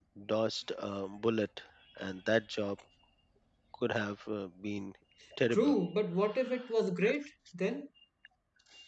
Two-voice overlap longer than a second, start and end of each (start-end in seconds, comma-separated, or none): none